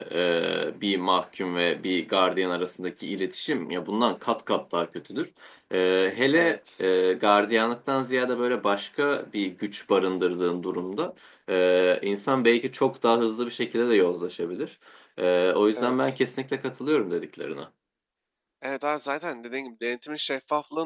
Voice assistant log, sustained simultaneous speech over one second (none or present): none